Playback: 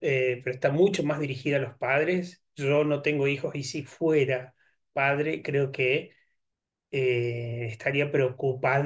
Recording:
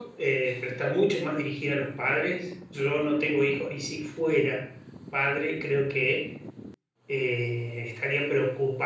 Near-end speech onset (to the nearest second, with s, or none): none